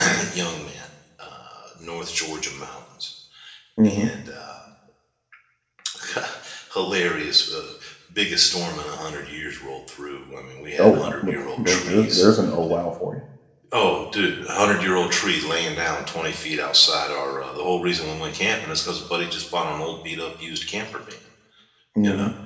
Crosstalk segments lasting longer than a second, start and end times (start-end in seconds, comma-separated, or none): 10.8-12.3